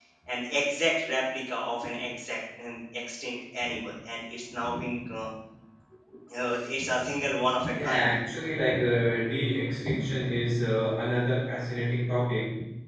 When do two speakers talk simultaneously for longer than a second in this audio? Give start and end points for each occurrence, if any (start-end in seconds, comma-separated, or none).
none